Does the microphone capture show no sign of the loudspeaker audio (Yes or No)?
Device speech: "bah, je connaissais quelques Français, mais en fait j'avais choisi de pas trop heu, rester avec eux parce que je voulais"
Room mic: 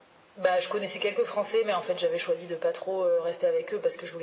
No